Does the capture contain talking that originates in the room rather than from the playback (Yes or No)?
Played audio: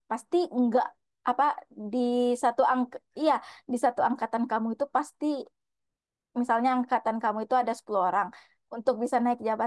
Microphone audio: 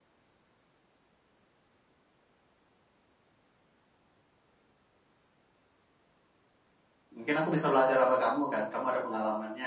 Yes